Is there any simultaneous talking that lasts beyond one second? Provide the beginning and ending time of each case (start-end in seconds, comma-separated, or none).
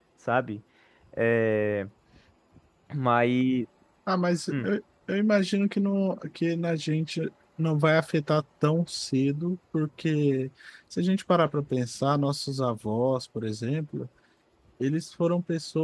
none